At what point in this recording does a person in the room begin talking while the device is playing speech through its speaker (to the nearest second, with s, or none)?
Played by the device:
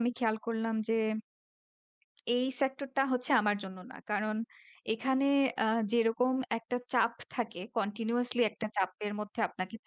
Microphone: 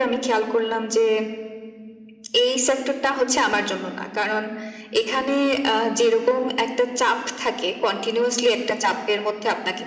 none